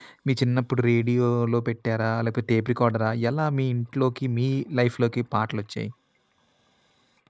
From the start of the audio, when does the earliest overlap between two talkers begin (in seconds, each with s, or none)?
none